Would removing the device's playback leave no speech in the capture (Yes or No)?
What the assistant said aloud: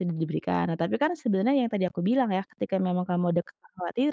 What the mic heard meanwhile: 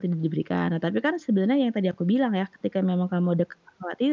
Yes